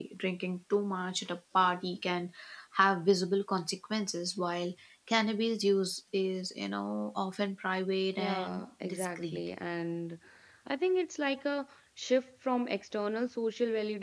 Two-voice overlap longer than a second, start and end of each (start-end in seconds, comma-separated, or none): 8.2-9.4